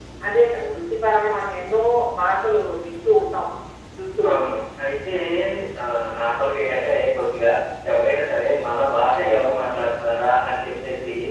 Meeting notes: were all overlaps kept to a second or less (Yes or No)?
Yes